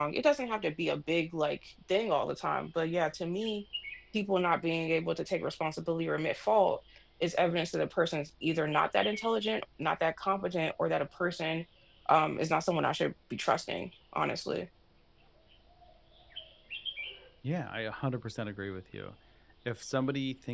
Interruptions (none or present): none